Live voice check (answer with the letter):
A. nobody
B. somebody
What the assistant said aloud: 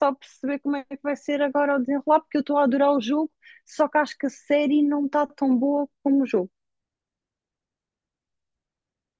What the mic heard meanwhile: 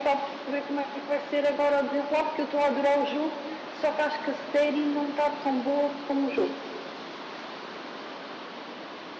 A